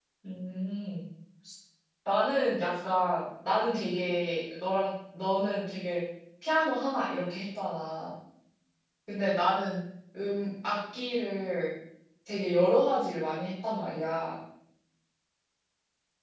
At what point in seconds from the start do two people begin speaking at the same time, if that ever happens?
none

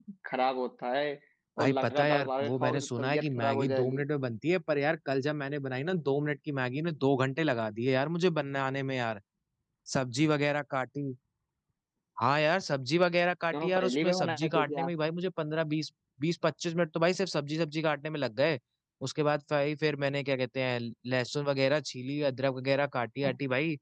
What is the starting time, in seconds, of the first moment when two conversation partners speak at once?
1.6 s

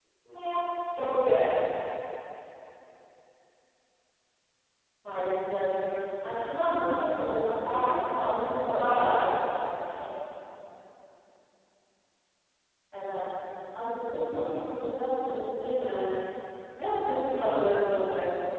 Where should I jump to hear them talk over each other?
7.6 s

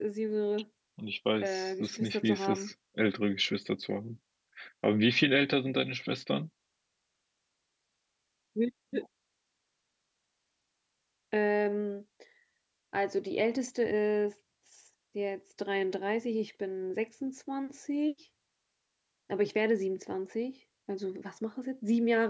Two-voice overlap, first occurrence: 1.4 s

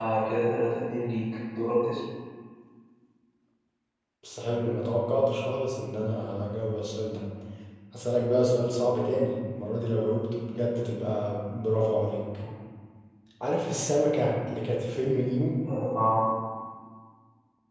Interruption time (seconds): none

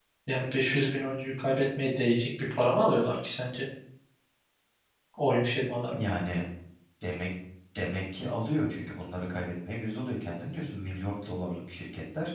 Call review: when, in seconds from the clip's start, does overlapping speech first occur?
none

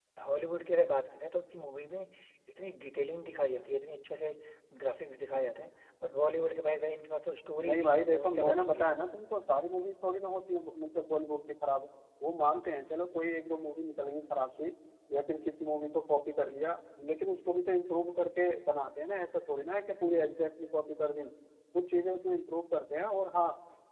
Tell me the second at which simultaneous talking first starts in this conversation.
7.6 s

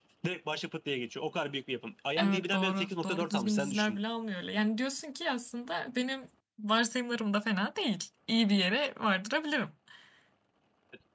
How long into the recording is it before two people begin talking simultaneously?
2.2 s

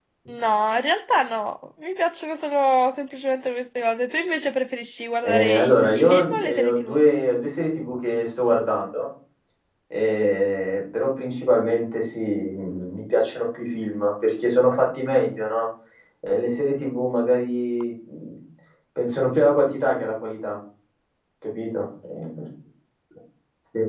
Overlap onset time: 5.2 s

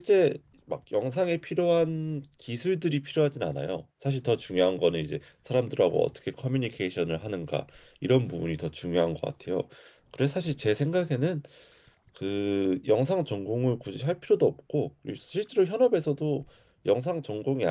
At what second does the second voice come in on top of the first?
none

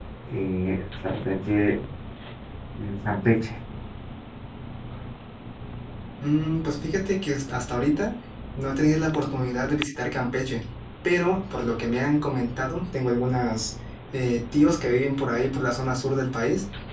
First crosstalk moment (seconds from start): none

